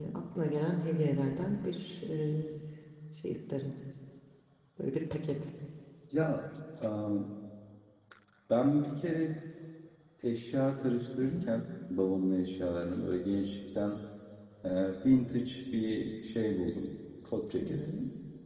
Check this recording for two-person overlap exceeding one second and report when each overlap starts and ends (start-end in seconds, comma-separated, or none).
none